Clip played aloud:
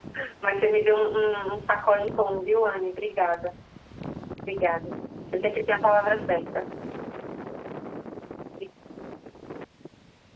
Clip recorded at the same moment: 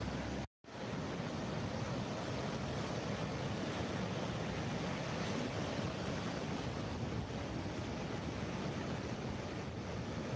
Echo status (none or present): none